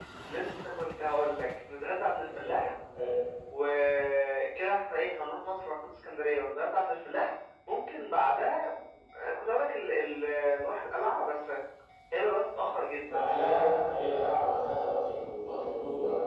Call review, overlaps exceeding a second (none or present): none